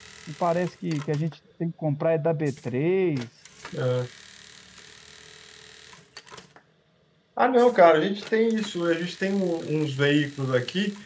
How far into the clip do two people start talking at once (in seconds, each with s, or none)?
none